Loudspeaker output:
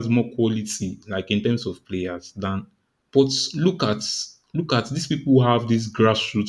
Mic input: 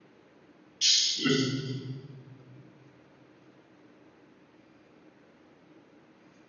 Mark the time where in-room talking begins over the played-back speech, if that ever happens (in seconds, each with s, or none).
0.8 s